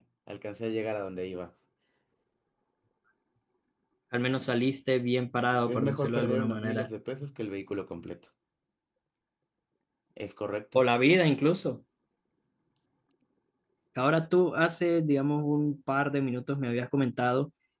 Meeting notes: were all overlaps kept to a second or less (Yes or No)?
No